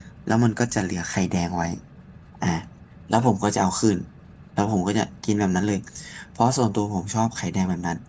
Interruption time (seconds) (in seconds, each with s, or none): none